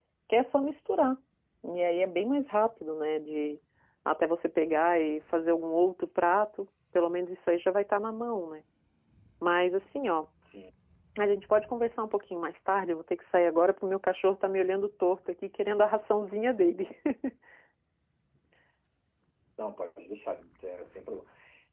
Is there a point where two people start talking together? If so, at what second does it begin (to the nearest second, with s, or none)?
none